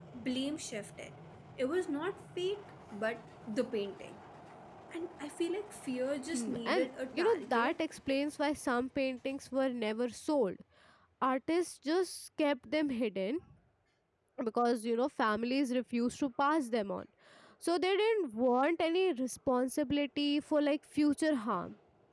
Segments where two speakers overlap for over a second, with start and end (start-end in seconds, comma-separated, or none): 6.3-7.8